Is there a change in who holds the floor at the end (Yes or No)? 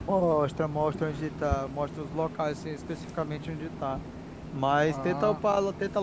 No